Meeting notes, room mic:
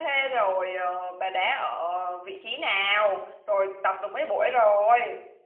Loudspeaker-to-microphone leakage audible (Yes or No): No